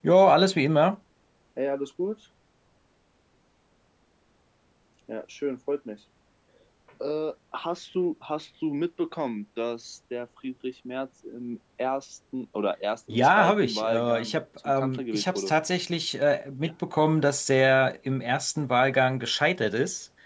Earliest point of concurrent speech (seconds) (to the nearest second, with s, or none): 13 s